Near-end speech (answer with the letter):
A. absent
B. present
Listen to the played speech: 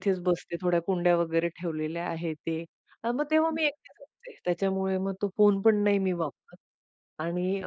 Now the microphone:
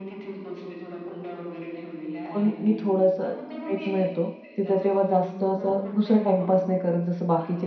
B